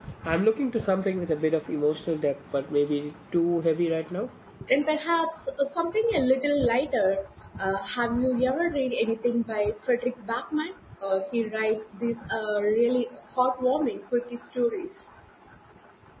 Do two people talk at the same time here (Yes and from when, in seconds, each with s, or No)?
No